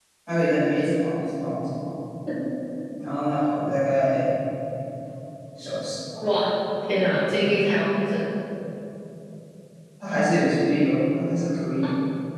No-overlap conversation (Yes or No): Yes